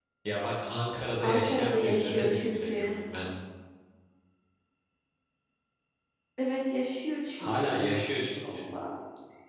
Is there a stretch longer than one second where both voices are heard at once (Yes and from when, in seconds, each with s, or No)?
Yes, from 1.2 s